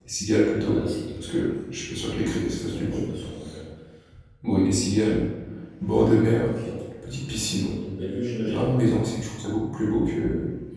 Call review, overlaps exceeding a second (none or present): none